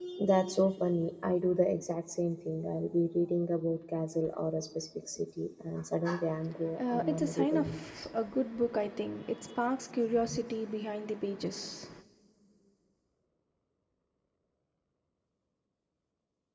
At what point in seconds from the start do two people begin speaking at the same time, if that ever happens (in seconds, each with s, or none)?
6.8 s